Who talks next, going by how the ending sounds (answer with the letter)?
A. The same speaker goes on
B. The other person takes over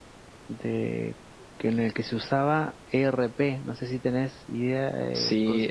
B